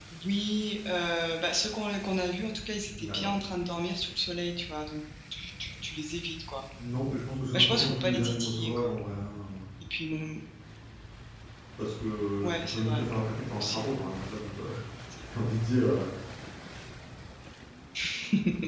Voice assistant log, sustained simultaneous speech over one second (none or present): present